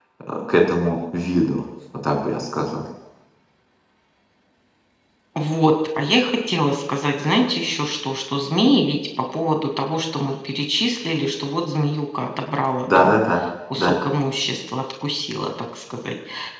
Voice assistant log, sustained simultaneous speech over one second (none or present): none